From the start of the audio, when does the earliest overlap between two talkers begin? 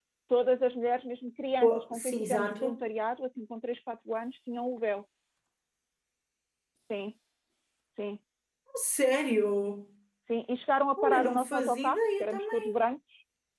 1.6 s

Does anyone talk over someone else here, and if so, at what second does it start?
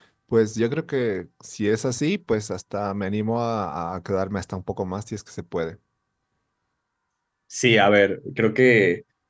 none

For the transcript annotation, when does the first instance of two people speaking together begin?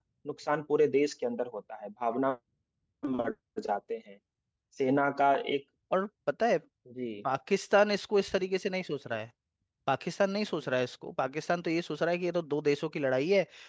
none

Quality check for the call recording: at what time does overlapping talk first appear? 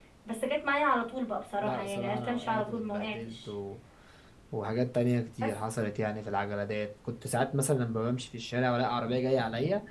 1.6 s

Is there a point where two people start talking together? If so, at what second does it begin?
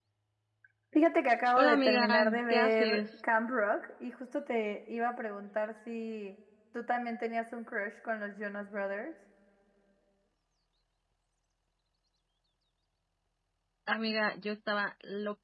1.6 s

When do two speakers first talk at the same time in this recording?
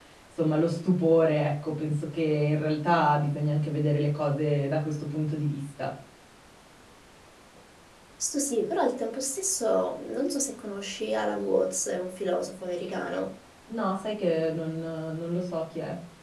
none

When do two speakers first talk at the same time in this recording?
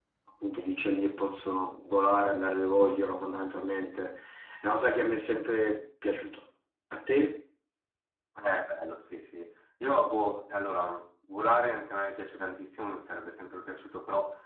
none

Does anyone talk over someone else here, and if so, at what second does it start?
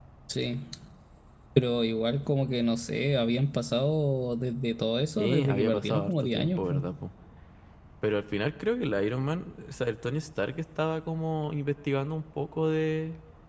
5.2 s

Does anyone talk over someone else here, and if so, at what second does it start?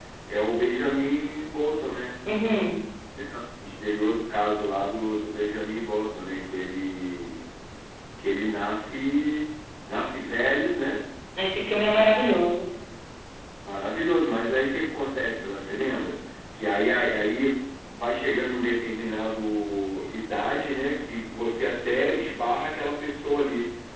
none

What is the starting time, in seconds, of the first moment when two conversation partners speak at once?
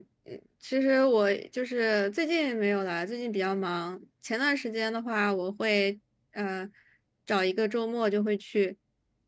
none

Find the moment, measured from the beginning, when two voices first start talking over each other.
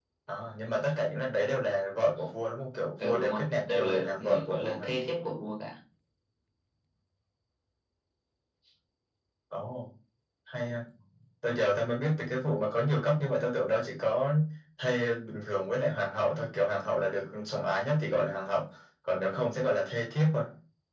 3.0 s

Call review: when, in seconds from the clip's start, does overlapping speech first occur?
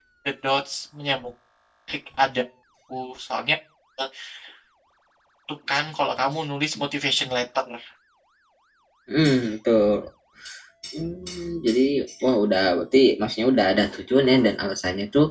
none

